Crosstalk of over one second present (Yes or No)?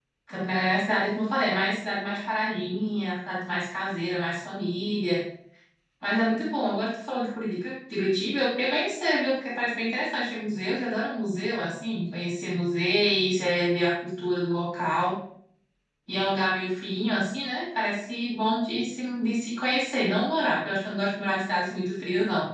No